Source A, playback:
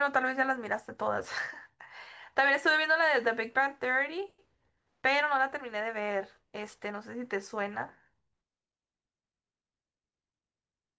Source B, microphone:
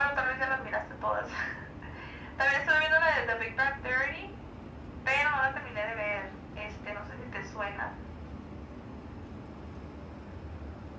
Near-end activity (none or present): none